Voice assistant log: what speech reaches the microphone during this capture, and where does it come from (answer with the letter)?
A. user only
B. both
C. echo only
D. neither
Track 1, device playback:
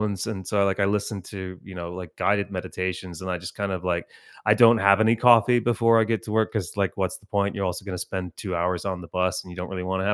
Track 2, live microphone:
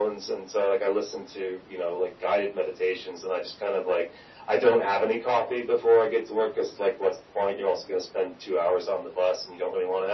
C